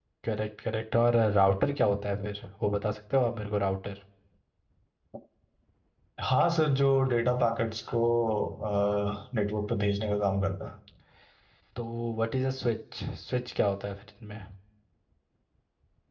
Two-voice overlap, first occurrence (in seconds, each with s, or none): none